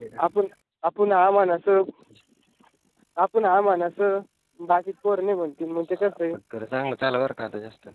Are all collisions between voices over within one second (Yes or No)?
Yes